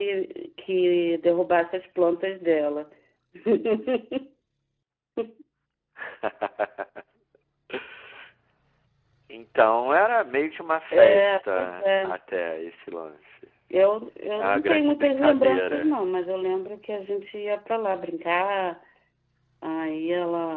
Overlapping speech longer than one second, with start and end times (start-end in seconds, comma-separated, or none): 10.9-12.2, 14.3-15.9